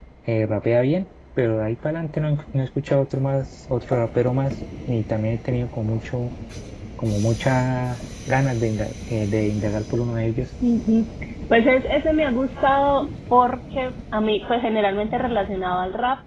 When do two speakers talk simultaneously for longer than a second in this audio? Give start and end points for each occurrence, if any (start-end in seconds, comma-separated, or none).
none